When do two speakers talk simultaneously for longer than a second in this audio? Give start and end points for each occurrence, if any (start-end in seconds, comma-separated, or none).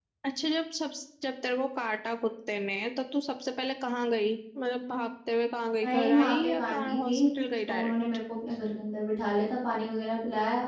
5.8-7.1